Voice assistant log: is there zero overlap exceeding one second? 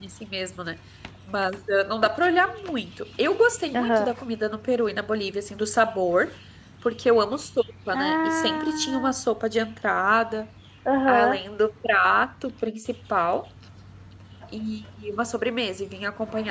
No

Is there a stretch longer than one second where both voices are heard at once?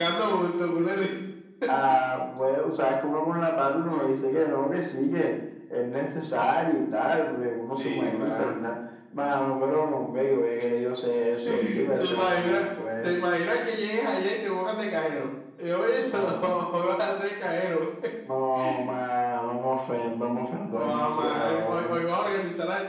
Yes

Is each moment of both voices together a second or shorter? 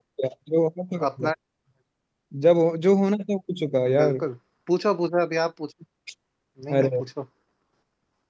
Yes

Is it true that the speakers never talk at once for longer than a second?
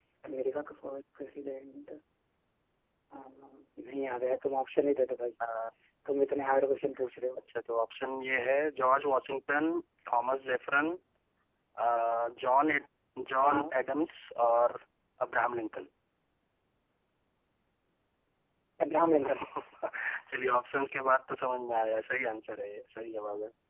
Yes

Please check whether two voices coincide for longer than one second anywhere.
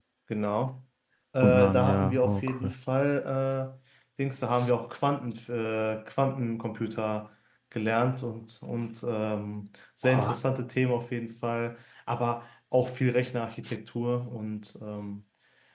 Yes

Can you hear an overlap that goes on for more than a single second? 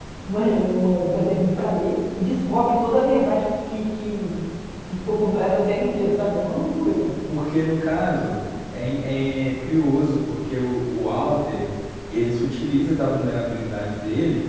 No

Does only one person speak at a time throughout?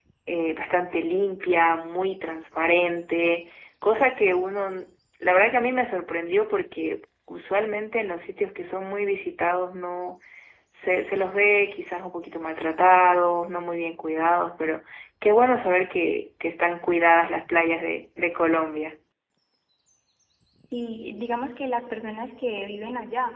Yes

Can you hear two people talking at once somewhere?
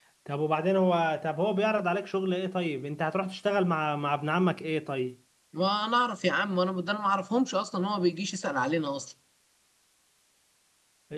No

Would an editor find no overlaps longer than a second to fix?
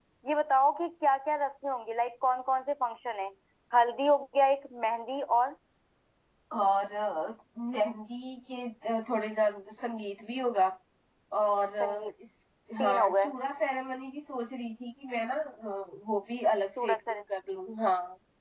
Yes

